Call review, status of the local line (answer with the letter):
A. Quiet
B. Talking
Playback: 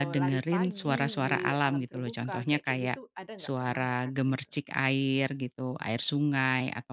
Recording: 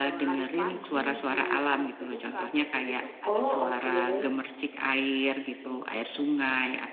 B